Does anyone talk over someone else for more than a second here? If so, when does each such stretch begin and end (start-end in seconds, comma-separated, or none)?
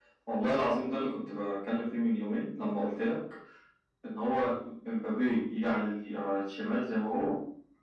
none